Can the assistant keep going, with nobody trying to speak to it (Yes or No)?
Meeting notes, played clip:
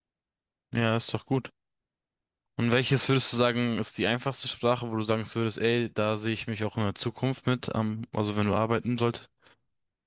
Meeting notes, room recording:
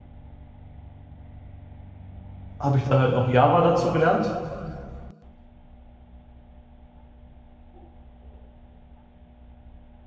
No